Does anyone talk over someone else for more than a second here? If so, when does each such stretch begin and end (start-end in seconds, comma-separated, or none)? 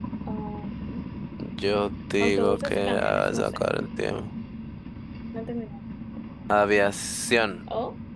2.2-3.6